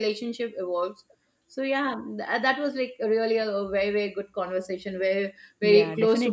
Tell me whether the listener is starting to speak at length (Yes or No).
Yes